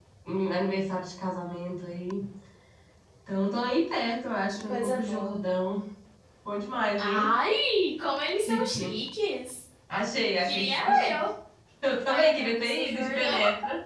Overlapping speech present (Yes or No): Yes